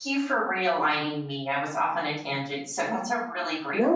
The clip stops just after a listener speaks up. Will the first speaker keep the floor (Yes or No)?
No